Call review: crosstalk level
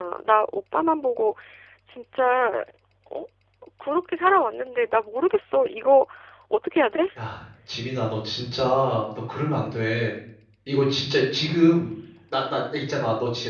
none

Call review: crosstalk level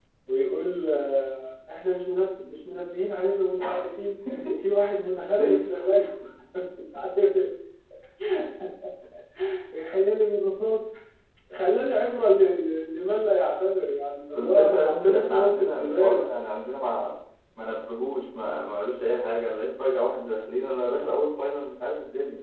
present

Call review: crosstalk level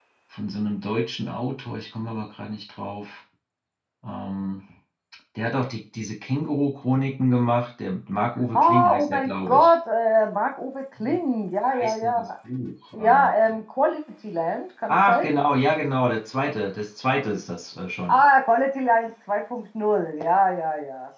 present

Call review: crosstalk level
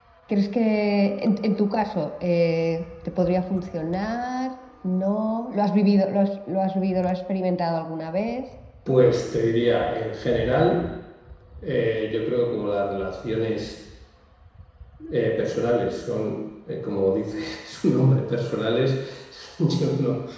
none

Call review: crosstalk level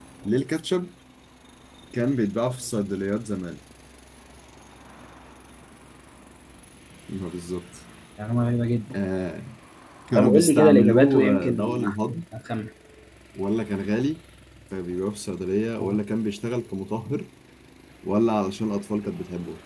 present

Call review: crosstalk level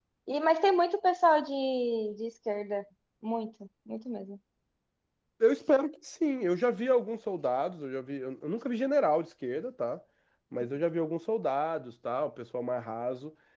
none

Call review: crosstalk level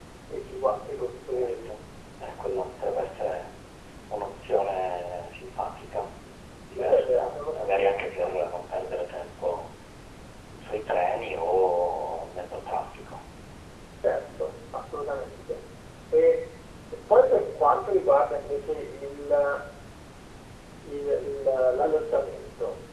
present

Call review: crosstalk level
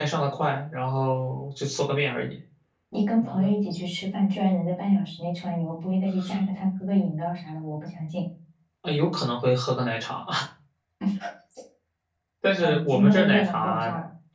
present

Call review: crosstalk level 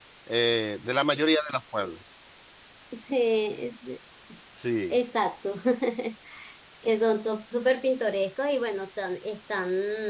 none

